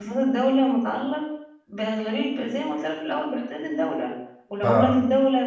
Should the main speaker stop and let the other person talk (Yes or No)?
No